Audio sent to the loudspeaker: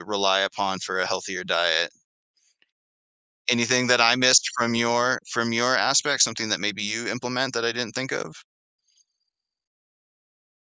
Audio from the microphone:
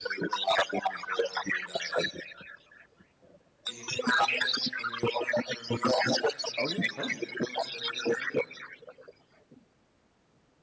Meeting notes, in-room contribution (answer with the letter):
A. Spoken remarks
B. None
A